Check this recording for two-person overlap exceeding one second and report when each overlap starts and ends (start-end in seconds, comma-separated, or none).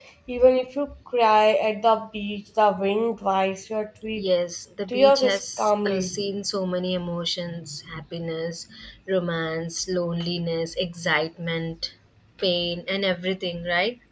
4.9-6.2